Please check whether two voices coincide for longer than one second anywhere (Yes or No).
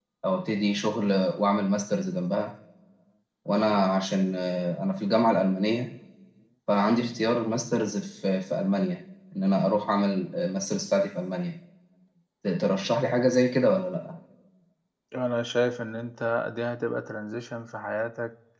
No